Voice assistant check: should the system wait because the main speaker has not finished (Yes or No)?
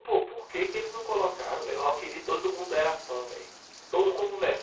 No